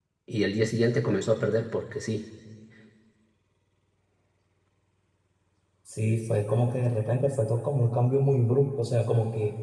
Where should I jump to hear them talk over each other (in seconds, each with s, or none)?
none